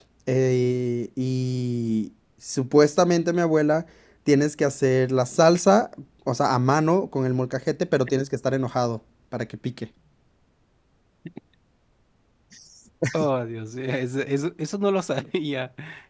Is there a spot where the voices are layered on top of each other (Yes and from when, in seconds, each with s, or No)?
No